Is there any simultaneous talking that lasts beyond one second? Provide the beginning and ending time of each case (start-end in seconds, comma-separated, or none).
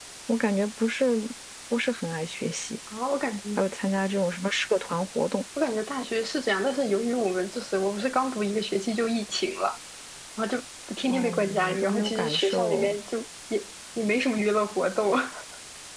11.1-12.9